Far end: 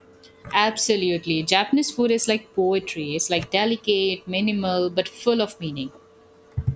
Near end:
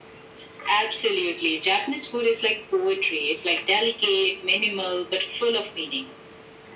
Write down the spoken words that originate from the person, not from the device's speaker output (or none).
none